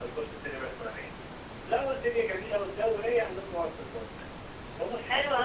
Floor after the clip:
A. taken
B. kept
A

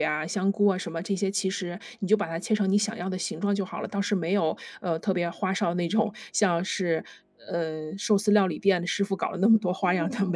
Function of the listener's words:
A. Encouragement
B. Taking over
B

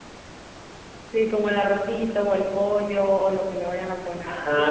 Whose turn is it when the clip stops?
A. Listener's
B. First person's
A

